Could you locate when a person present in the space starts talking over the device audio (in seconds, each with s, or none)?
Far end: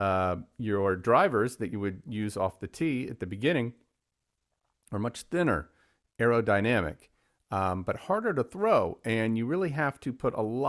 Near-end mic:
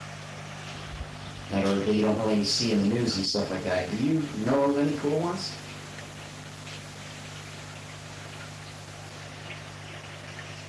1.5 s